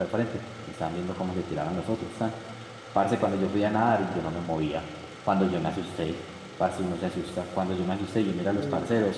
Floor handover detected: No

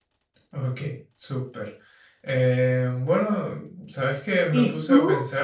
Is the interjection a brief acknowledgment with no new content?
Yes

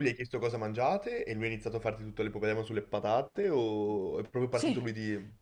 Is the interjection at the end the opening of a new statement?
Yes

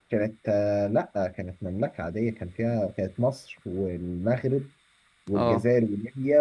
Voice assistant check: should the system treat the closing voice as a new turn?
No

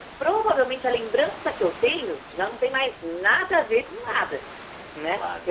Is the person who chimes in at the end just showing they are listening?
Yes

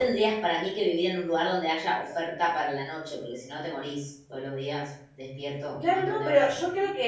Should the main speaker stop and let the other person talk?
Yes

